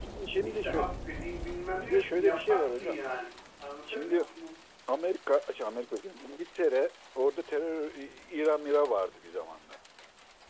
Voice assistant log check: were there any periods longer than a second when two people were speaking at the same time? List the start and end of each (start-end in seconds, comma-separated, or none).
1.8-3.0